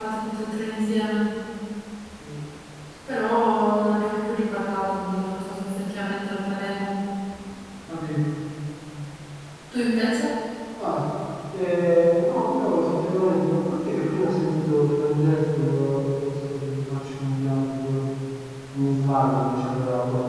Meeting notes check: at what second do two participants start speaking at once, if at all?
none

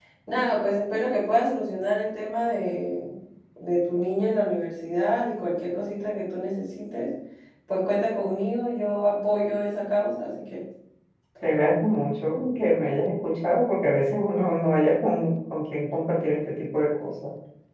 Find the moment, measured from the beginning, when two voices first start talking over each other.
none

